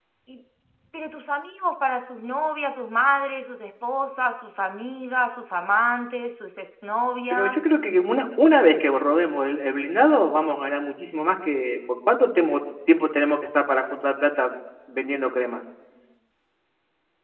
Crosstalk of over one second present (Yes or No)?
No